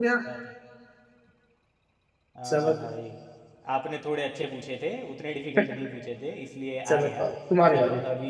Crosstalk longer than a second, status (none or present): none